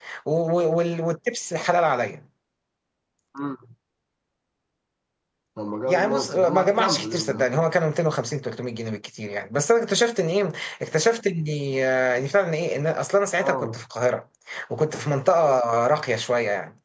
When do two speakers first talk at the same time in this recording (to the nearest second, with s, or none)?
6 s